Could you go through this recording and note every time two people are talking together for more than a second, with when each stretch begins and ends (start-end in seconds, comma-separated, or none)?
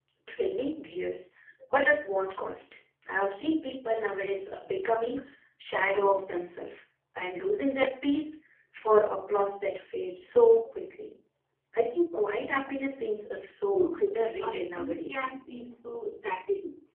13.7-15.3